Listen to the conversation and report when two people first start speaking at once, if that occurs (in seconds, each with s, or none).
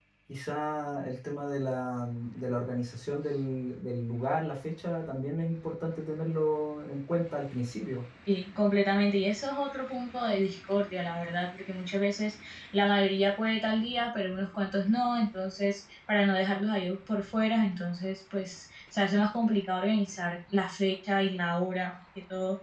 none